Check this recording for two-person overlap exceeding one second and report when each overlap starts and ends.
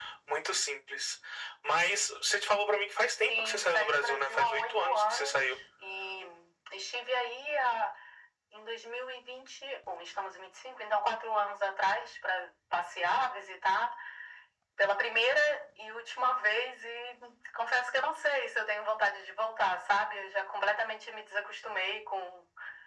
3.3-5.4

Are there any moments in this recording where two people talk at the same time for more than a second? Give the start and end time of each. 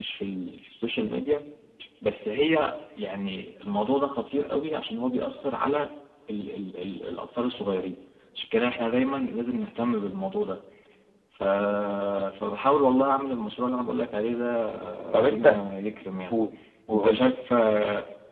none

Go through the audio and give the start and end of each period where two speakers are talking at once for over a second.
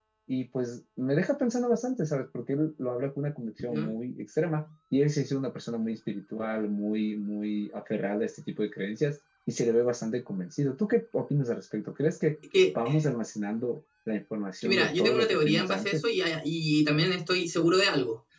14.6-16.0

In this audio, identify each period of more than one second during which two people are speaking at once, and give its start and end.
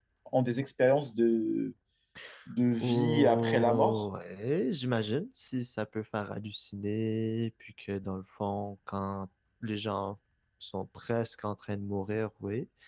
2.8-4.1

